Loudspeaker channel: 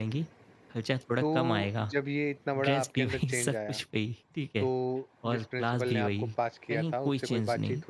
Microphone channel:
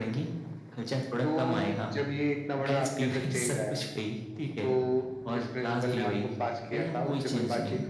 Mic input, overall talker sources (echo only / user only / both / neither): echo only